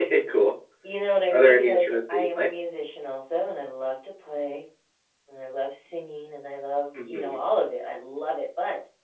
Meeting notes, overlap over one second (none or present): present